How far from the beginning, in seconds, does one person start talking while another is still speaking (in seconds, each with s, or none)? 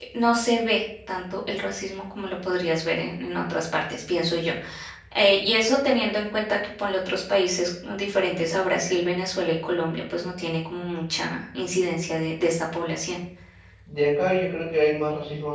none